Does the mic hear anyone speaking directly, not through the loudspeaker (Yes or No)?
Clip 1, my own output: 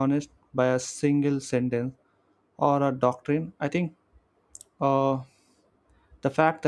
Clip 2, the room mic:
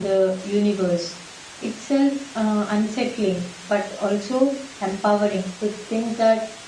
Yes